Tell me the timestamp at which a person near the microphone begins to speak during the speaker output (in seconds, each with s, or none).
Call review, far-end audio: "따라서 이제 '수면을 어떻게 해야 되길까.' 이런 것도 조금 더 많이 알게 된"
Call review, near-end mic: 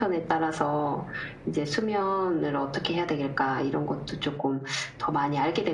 none